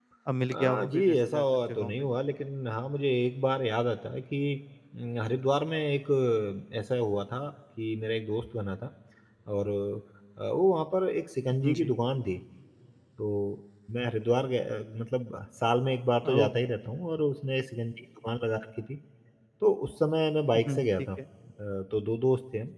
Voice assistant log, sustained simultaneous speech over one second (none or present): present